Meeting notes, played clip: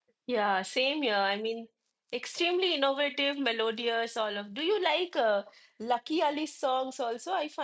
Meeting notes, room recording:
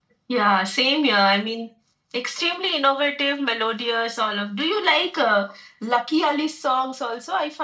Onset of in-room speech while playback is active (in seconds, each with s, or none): none